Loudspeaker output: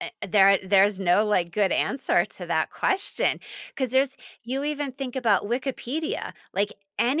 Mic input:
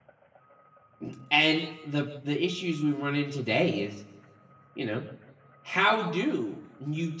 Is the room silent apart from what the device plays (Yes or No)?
No